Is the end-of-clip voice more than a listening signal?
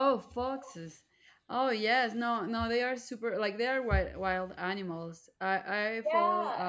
Yes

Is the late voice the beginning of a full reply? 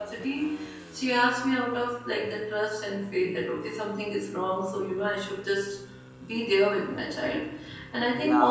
No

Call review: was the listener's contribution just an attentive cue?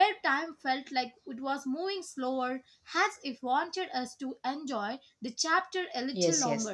No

